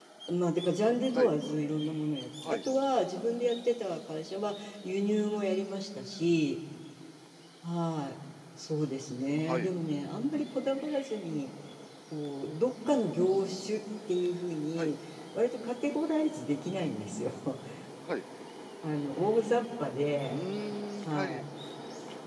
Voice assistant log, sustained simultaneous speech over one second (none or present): none